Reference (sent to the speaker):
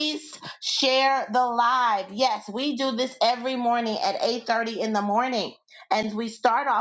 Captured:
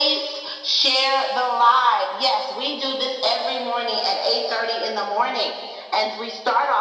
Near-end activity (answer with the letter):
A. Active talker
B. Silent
B